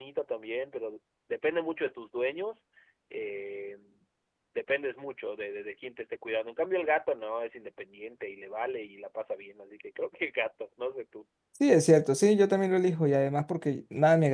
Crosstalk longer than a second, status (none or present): none